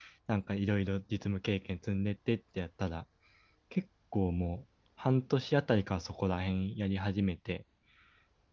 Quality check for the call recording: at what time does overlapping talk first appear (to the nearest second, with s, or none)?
none